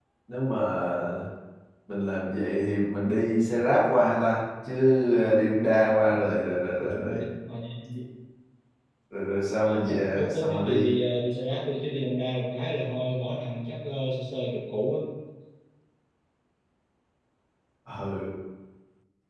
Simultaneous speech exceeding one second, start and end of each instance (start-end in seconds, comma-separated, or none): 9.6-10.9